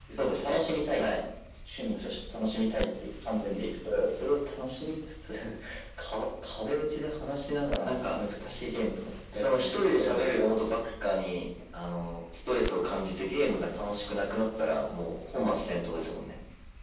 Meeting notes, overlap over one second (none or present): present